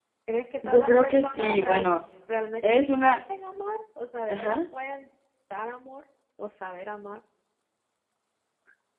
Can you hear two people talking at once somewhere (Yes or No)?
Yes